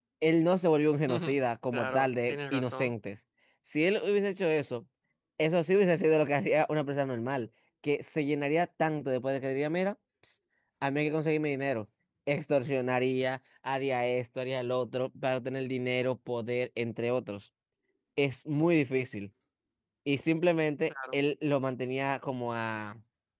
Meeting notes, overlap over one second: present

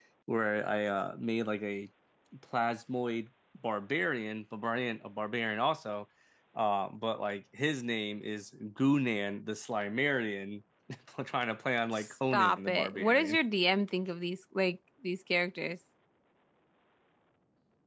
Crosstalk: present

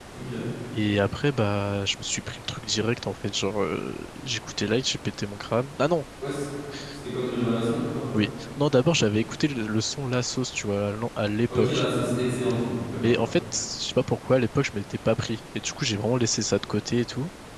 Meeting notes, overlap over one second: none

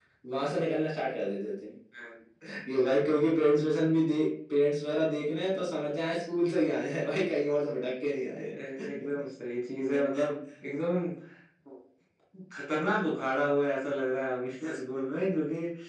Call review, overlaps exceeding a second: none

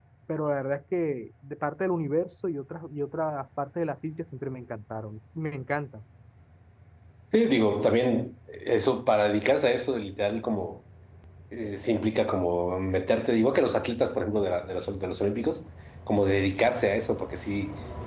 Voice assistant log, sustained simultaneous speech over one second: none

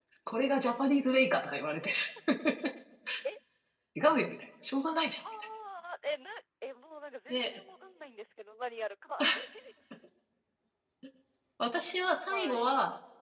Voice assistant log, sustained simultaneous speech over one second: none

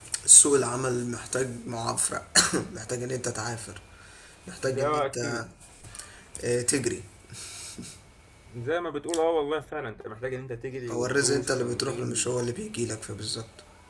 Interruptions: present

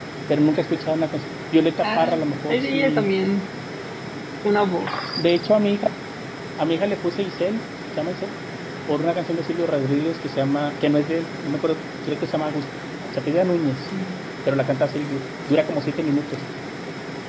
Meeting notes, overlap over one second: present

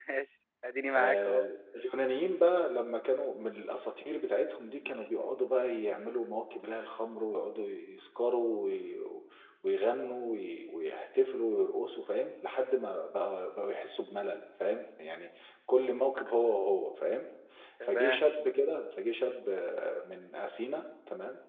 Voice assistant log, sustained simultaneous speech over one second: none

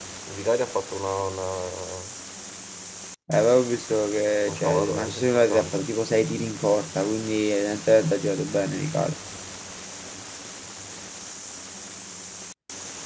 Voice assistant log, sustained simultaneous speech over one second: present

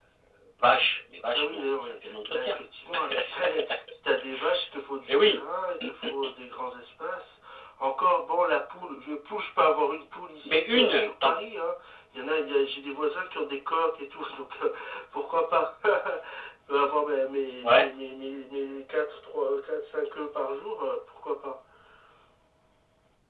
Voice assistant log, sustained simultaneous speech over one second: present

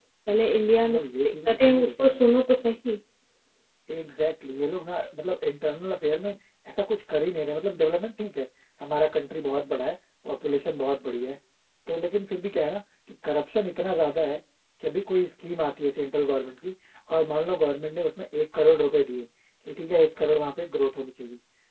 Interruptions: present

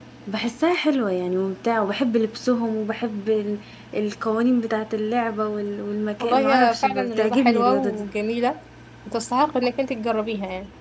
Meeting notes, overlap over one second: present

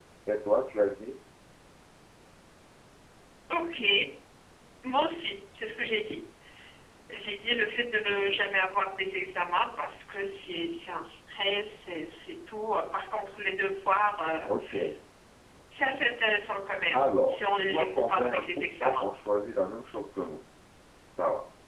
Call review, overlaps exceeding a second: present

